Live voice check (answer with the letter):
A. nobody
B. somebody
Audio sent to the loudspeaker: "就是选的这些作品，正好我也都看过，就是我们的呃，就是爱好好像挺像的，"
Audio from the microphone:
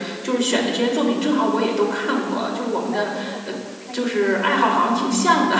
B